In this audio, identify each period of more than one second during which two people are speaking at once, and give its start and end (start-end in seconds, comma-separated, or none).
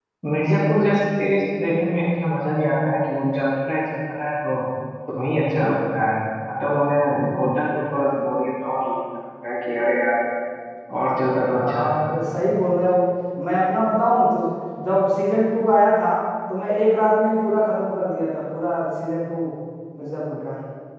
none